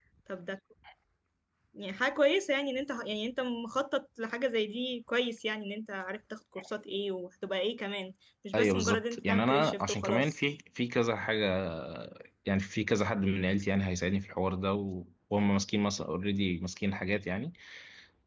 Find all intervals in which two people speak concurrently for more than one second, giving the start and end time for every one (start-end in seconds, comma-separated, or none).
8.6-10.4